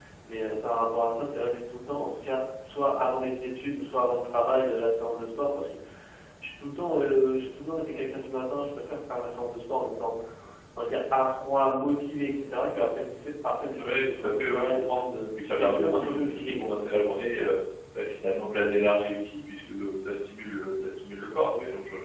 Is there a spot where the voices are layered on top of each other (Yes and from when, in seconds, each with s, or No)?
Yes, from 13.8 s